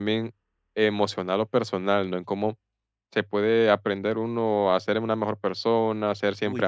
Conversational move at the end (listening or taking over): listening